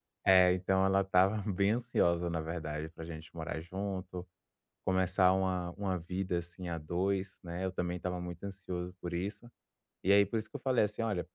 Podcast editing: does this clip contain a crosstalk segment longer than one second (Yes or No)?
No